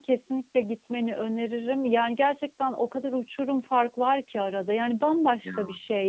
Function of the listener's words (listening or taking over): listening